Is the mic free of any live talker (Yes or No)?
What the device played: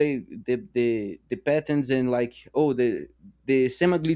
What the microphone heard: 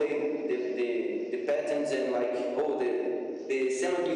Yes